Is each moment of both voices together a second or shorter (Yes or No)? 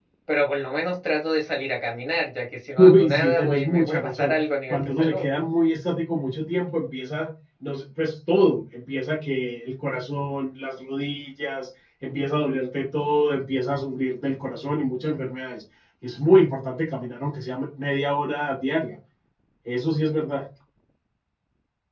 No